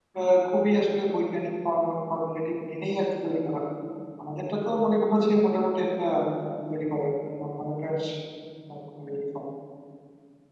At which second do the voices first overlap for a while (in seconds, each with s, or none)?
none